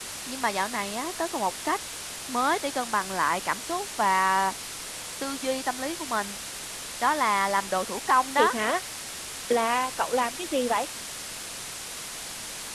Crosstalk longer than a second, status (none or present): none